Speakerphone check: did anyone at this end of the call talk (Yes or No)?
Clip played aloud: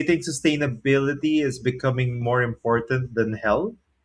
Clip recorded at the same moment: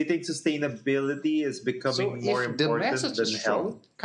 Yes